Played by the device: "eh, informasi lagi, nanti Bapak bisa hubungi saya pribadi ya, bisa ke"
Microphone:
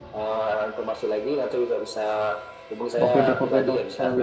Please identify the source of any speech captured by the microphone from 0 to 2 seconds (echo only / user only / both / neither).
echo only